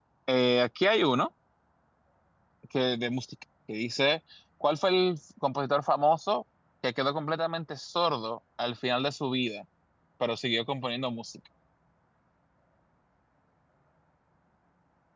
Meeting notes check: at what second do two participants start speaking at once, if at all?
none

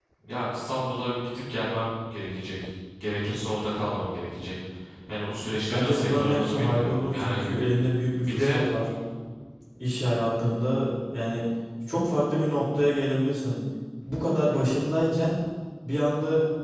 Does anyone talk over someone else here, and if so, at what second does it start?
5.7 s

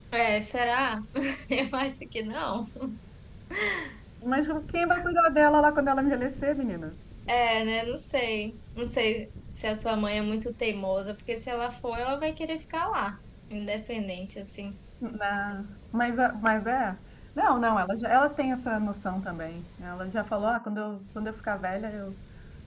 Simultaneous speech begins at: none

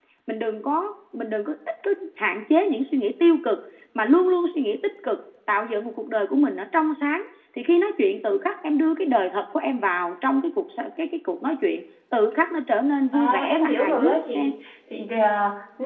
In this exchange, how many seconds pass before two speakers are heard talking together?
13.1 s

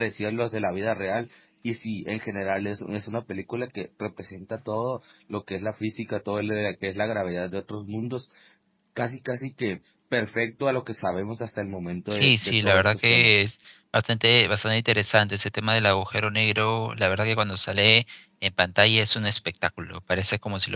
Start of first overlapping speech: 12.1 s

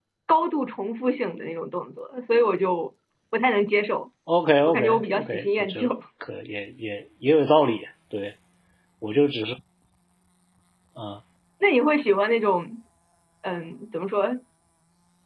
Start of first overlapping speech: 4.7 s

